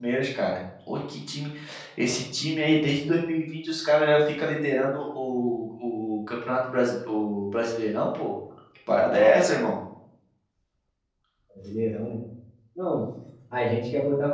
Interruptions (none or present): none